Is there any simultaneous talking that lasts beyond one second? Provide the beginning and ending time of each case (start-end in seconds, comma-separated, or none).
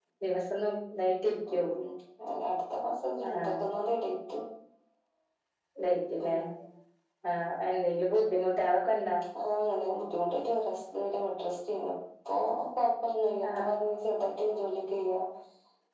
none